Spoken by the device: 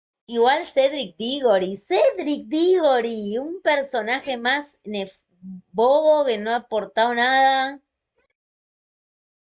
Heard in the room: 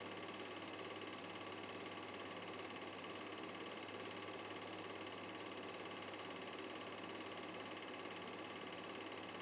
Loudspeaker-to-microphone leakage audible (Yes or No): No